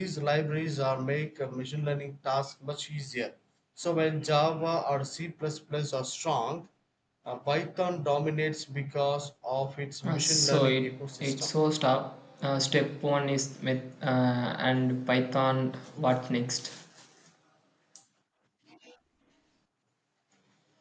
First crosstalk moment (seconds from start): 10.0 s

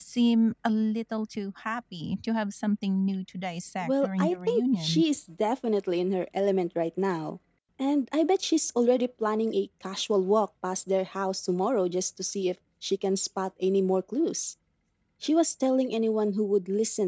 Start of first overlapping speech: 3.8 s

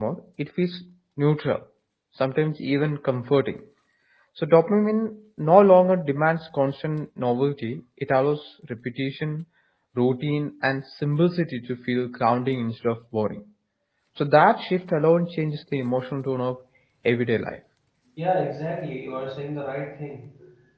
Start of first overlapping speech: none

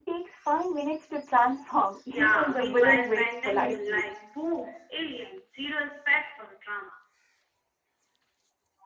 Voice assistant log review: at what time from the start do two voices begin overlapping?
2.1 s

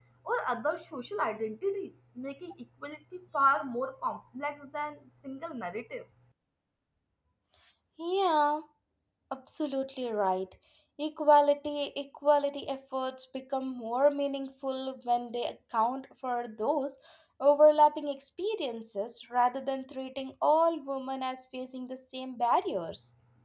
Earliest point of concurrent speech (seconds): none

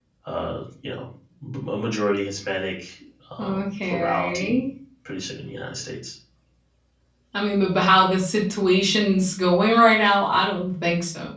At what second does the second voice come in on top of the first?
3.4 s

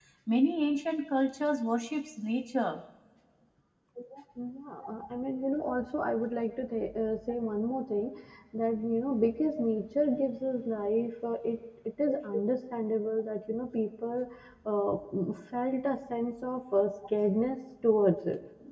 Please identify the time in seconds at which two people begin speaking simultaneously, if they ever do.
none

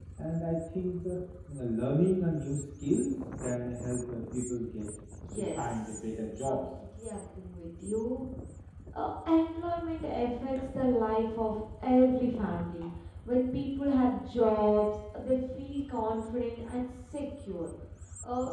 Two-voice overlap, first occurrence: 5.3 s

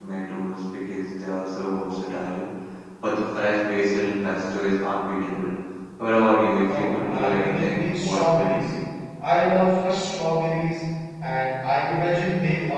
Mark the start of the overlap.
6.7 s

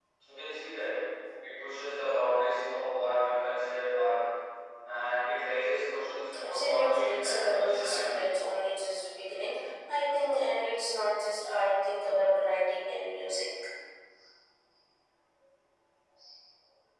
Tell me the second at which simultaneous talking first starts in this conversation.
6.4 s

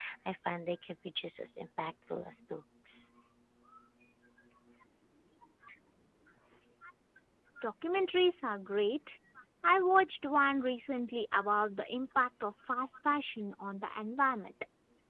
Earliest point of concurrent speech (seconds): none

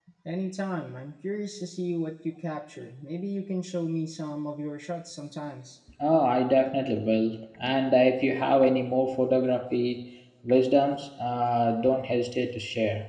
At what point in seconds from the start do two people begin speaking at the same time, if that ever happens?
none

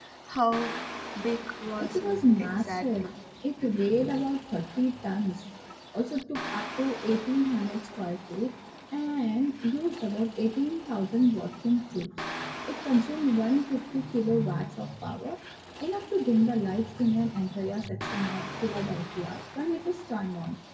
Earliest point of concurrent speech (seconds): 1.8 s

